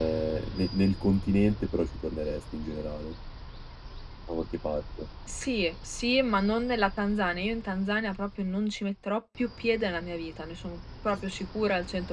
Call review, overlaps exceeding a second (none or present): none